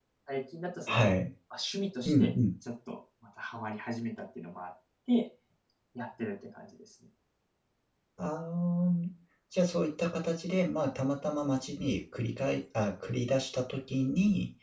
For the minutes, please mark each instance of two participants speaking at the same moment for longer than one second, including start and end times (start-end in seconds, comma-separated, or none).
none